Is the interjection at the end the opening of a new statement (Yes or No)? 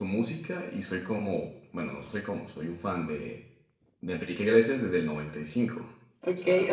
Yes